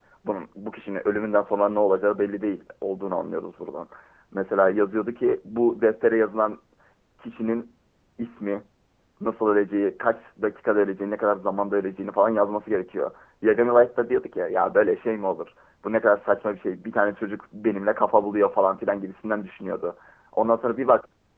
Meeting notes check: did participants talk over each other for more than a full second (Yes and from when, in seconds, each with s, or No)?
No